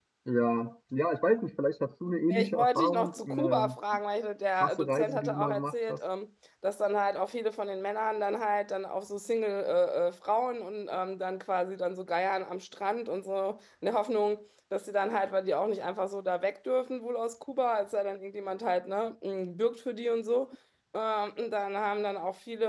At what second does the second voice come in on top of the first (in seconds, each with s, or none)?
2.3 s